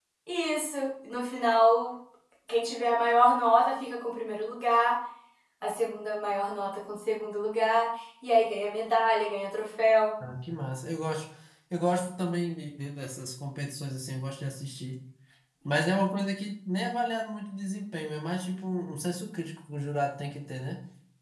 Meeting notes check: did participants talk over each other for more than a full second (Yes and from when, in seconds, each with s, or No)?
No